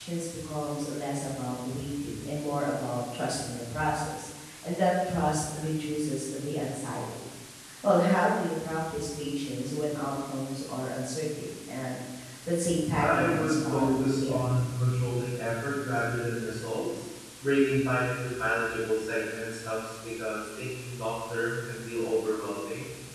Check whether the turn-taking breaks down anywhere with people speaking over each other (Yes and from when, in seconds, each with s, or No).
Yes, from 13.0 s